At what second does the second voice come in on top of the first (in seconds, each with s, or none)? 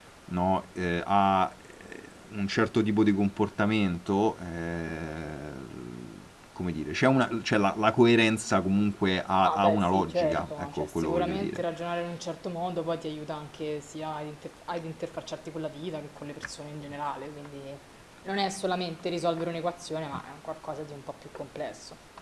9.4 s